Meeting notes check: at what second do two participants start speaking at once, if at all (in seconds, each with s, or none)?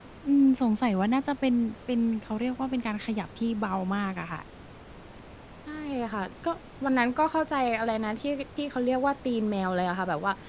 none